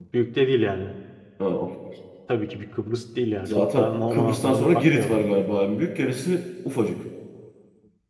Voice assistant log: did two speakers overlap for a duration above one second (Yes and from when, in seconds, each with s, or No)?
Yes, from 3.5 s